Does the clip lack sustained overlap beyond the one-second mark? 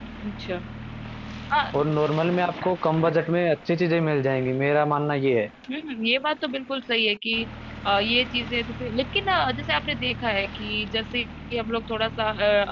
Yes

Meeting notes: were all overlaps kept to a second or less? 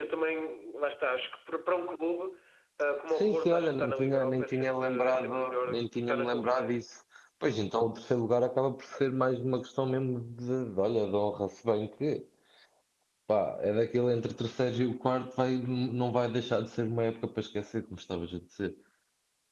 No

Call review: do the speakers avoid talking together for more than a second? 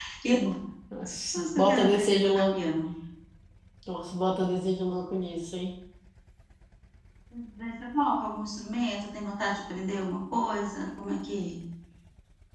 No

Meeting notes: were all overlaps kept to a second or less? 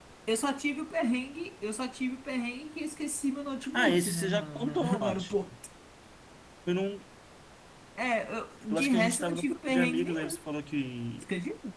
No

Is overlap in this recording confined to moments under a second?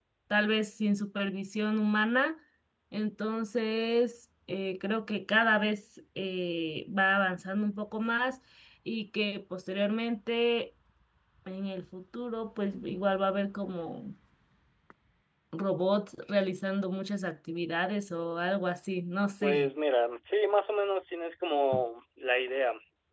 Yes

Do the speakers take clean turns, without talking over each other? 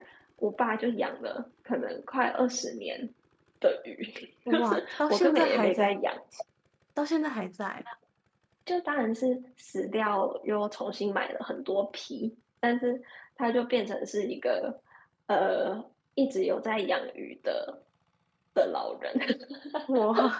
No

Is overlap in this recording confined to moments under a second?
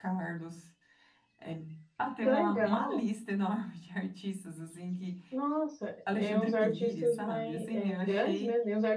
No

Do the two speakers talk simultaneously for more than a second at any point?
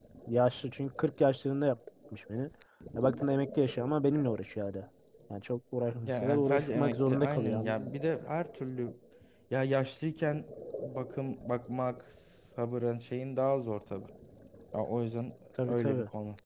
Yes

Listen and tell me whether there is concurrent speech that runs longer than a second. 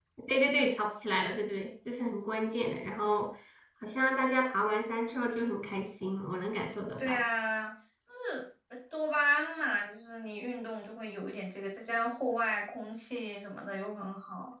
No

